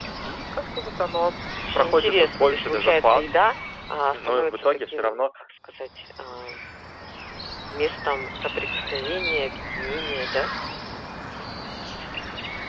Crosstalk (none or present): present